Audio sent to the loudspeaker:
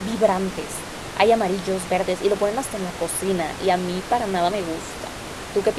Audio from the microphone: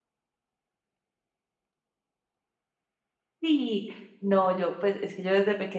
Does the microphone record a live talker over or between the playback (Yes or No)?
Yes